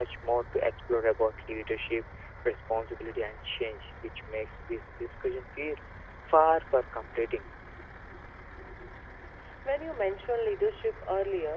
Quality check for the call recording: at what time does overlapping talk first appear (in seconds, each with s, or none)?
none